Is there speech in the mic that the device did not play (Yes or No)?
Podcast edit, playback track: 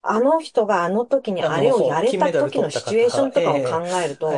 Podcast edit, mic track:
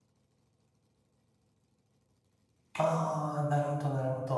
Yes